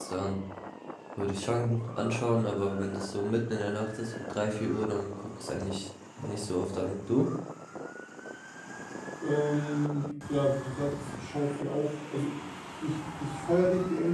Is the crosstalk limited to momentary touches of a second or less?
Yes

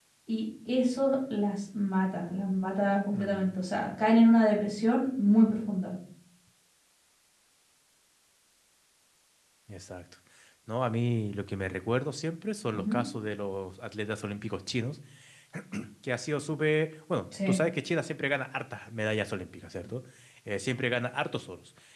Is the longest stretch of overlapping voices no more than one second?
Yes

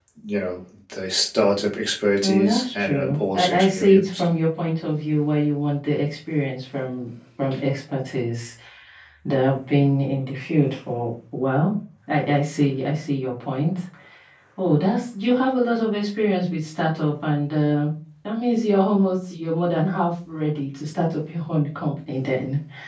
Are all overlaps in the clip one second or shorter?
No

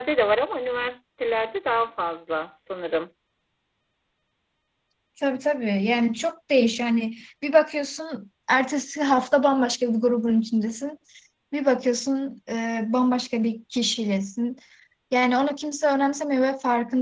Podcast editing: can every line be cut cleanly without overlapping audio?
Yes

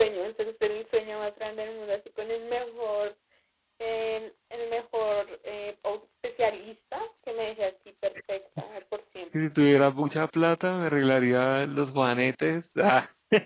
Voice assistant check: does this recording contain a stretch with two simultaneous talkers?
No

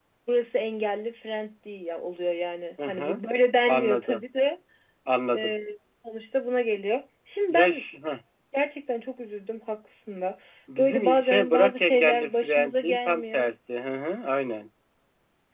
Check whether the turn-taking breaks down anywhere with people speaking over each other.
Yes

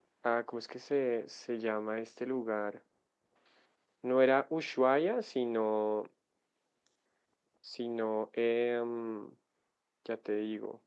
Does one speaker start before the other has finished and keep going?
No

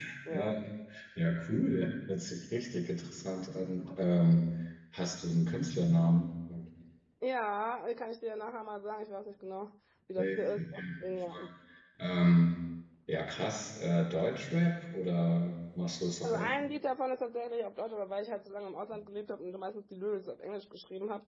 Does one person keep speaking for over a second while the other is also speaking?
Yes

